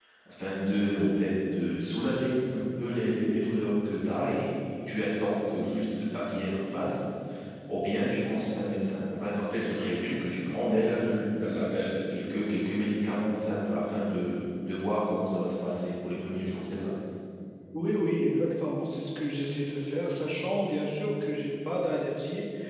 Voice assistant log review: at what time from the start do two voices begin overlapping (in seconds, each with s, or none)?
none